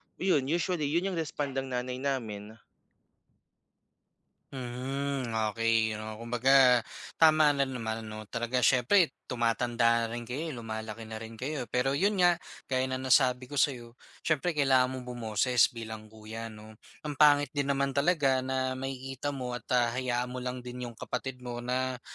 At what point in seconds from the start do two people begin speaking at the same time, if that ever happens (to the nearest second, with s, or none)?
none